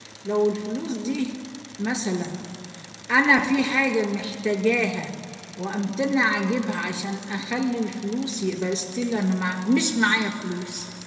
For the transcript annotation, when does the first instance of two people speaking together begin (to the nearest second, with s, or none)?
none